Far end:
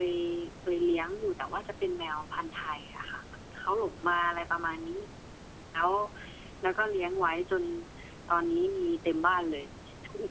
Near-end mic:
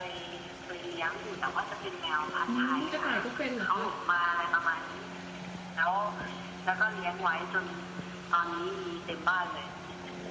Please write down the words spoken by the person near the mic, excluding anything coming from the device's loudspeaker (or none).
อืมกระต่ายก็เป็นเหรอคะ